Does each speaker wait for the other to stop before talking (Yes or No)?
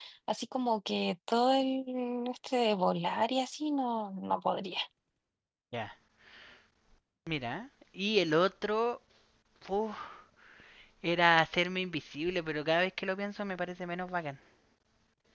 Yes